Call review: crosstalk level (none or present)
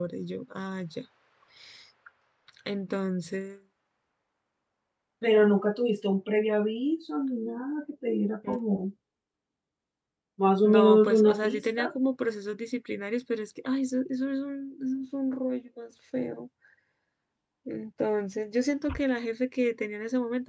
present